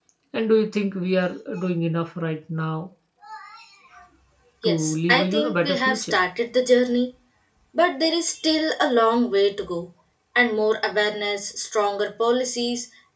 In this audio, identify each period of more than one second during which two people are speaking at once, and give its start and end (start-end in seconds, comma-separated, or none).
4.6-6.2